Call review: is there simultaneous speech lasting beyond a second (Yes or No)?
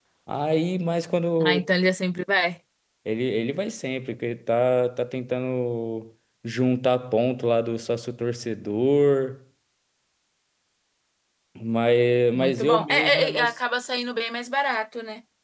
Yes